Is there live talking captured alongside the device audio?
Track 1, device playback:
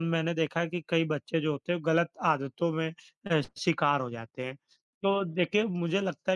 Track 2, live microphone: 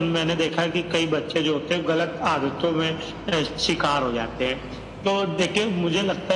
No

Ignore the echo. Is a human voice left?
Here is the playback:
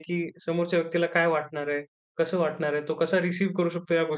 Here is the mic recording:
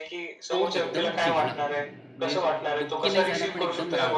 Yes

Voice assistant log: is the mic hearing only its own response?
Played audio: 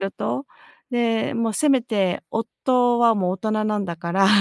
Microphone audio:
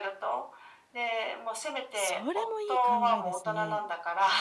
No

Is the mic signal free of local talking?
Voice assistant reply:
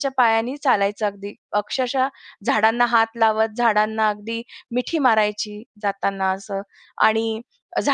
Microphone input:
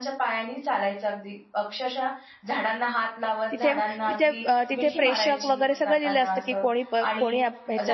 No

